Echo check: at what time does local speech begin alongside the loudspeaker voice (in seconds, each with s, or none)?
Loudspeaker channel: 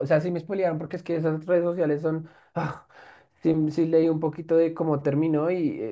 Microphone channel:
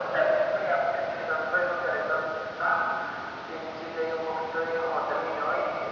none